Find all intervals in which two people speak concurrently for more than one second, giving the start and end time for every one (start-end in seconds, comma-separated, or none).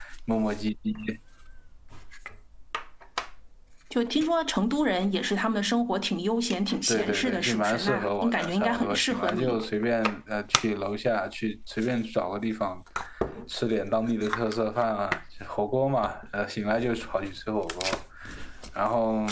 6.9-9.6